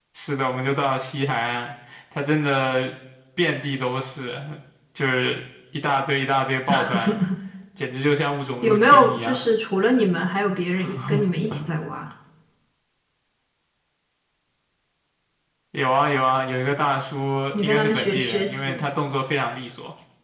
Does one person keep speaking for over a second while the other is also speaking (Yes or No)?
Yes